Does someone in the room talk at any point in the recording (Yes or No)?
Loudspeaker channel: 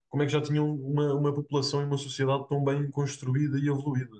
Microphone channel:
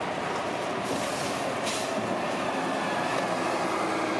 No